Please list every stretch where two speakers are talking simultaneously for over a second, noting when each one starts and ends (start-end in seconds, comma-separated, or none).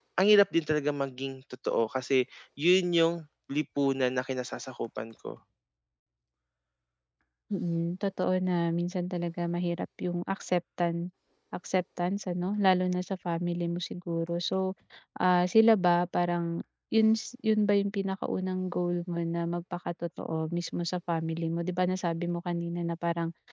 none